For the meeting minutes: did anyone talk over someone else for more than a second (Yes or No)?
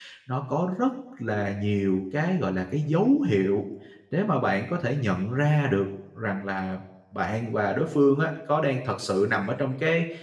No